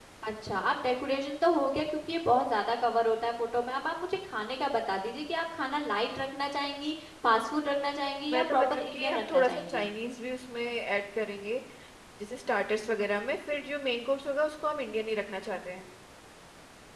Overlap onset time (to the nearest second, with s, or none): 8 s